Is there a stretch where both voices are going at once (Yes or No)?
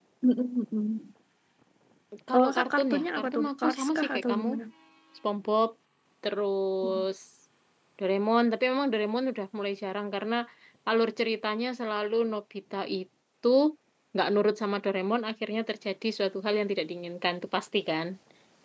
Yes